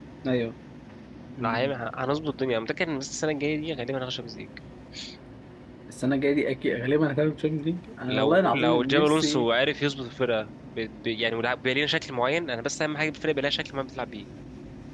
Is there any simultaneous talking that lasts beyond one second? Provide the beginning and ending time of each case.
8.1-9.5

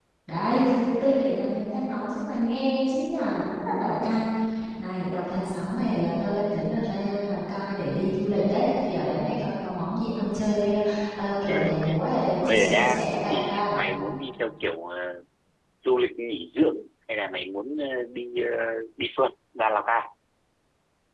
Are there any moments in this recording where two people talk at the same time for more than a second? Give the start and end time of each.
12.4-13.8

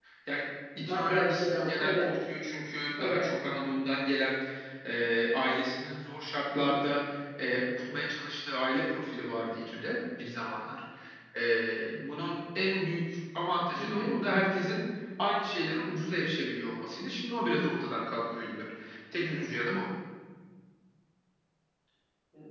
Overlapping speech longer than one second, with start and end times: 0.9-2.1

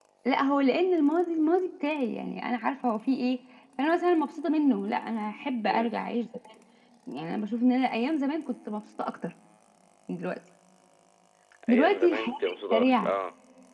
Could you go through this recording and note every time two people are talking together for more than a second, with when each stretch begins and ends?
11.7-13.2

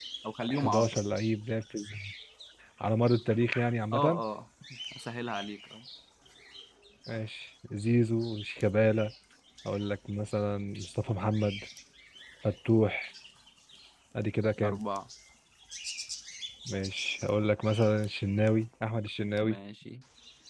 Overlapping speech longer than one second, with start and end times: none

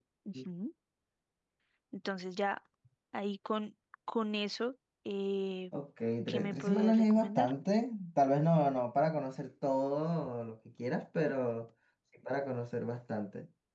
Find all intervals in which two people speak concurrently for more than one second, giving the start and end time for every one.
6.3-7.5

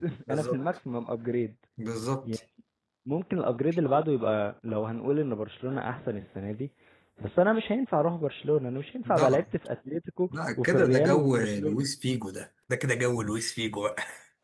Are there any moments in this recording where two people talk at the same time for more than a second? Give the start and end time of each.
10.4-11.9

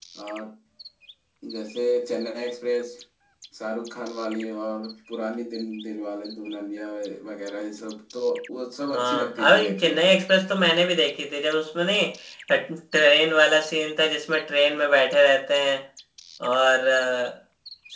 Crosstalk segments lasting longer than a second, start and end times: 8.9-10.1

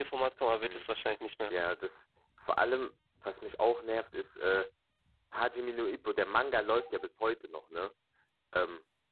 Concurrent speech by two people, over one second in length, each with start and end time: none

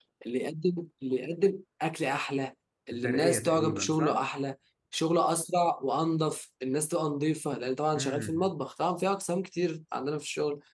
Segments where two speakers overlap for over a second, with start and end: 2.9-4.2

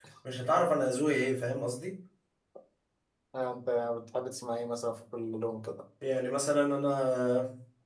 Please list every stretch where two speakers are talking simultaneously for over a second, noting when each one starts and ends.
none

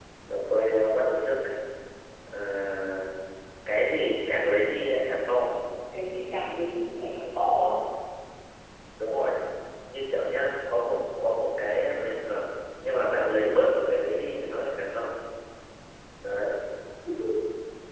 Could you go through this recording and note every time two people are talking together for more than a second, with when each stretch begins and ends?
none

